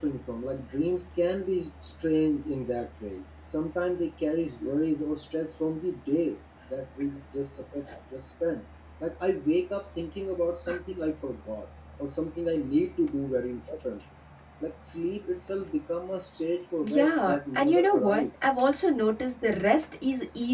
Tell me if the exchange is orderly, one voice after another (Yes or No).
No